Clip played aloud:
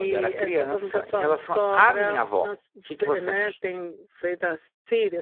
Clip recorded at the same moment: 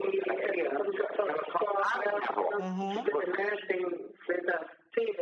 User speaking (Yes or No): Yes